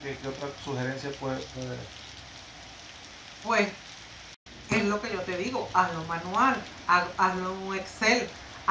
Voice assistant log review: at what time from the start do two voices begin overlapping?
none

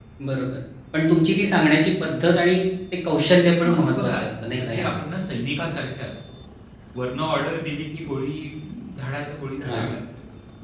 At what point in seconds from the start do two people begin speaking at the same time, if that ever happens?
3.6 s

